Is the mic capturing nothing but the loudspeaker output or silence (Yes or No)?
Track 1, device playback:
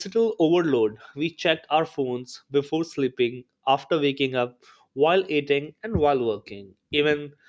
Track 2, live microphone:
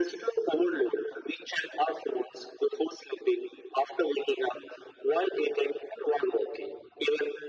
Yes